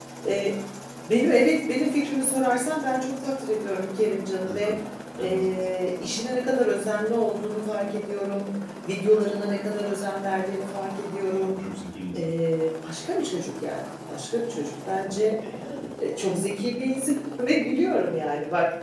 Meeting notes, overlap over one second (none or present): none